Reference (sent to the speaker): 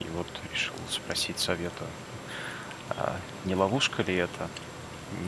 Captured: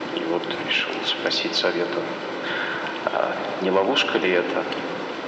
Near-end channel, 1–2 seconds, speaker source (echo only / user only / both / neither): echo only